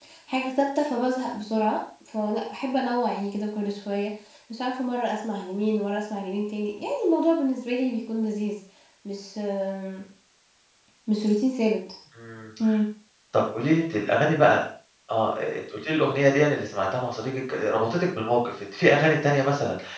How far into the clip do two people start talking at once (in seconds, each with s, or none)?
none